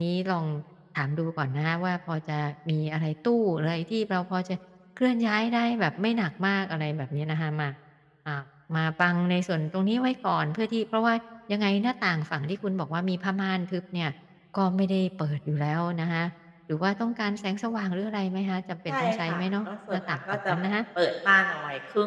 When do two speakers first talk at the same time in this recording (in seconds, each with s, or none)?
18.9 s